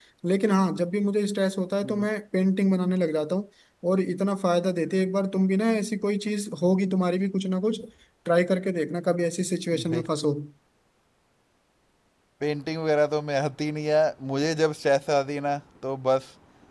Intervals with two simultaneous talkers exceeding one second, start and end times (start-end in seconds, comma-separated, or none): none